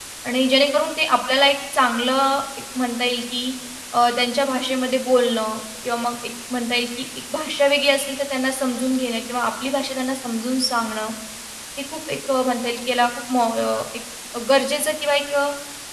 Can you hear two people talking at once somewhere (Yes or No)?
No